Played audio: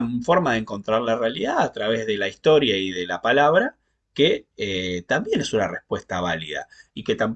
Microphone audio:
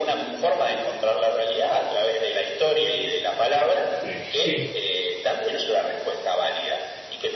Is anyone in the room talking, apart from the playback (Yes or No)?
Yes